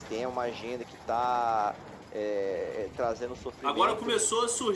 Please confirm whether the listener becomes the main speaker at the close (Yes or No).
Yes